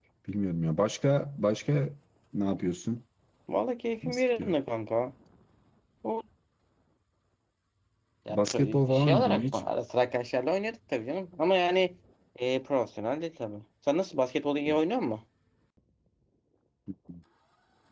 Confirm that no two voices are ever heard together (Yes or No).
No